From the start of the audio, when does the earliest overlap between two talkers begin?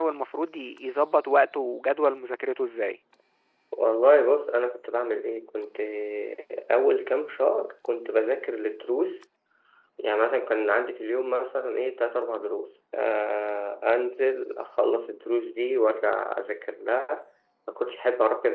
none

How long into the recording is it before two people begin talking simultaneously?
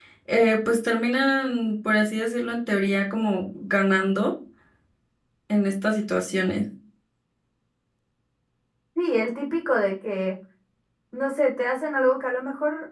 none

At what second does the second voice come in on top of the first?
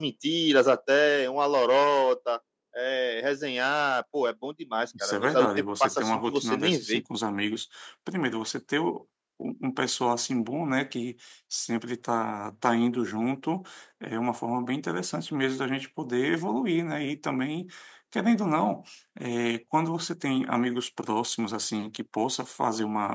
4.9 s

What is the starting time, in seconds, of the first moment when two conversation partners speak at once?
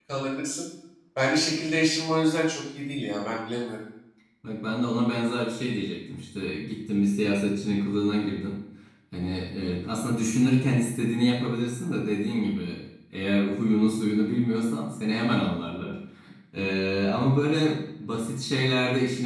none

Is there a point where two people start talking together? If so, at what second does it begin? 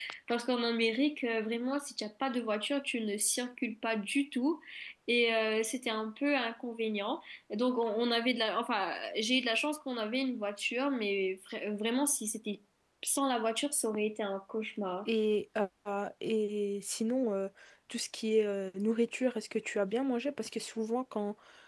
none

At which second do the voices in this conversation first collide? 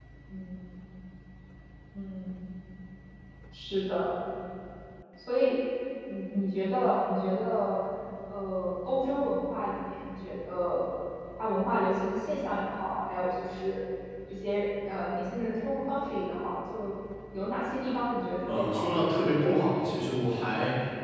18.5 s

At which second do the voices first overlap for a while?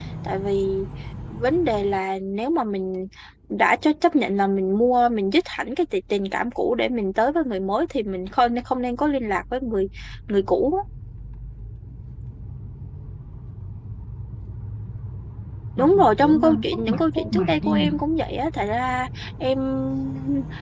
15.8 s

